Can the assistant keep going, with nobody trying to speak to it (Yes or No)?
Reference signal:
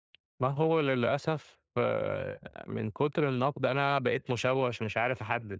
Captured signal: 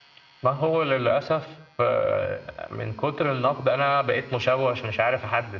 Yes